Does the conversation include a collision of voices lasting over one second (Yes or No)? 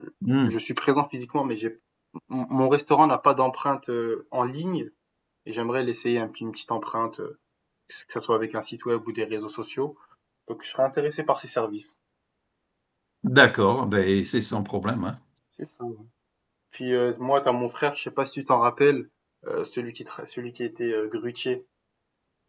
No